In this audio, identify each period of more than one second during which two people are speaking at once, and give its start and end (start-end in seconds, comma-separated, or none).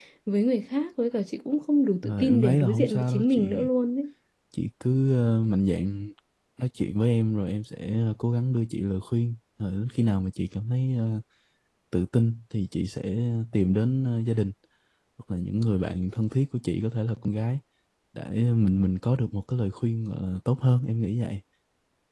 2.0-3.7